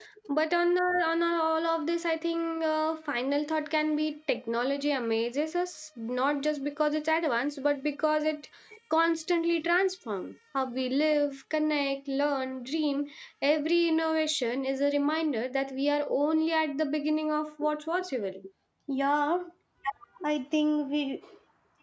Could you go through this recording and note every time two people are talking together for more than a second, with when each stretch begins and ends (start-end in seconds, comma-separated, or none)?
none